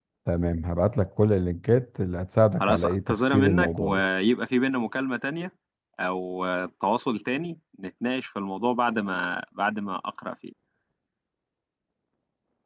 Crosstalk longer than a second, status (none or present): present